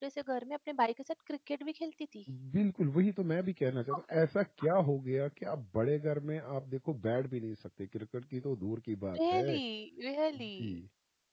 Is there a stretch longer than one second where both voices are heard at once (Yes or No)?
No